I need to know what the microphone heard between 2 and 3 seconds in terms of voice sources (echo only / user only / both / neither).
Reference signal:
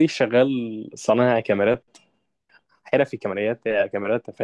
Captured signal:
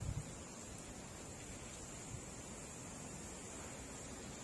neither